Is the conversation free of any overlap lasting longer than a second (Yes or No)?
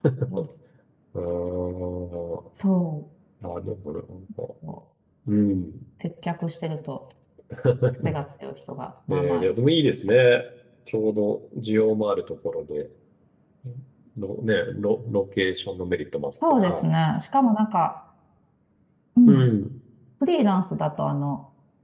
Yes